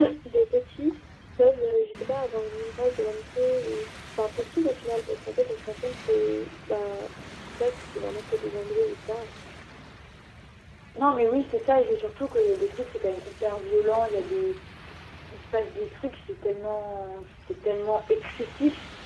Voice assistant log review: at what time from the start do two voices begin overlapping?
none

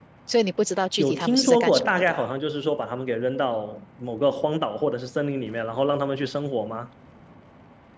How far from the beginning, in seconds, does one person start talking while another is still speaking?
1.0 s

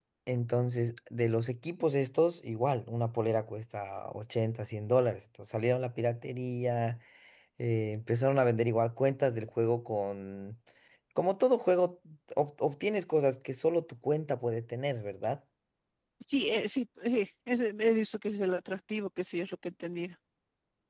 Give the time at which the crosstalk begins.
none

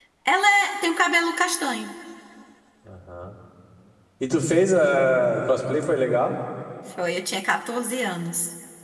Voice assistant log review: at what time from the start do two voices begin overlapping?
none

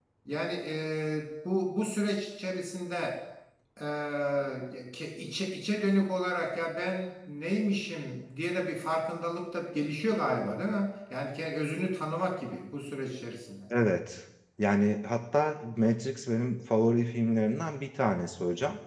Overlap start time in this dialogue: none

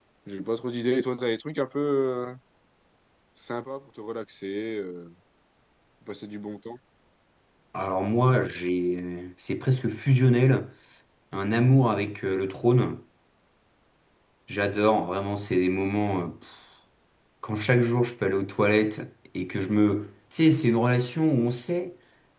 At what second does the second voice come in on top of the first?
none

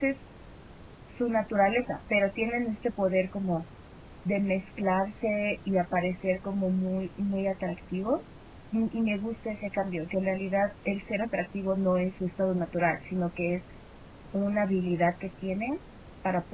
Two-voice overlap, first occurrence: none

